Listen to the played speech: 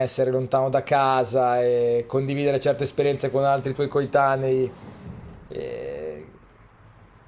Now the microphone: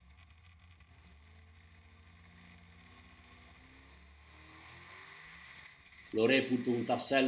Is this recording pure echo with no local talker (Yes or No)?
No